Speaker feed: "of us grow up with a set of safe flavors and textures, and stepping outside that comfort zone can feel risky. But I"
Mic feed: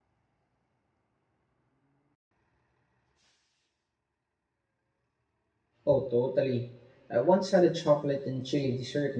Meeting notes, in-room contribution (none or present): present